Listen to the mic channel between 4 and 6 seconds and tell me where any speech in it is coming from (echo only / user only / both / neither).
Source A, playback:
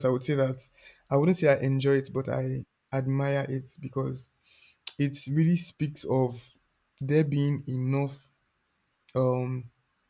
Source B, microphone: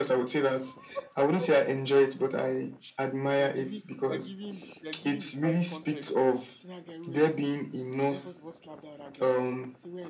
both